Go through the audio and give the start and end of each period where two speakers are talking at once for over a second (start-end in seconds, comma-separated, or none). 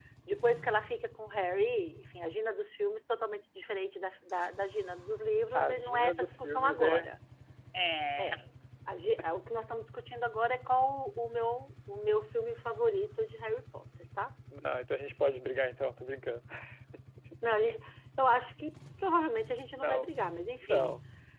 5.5-7.0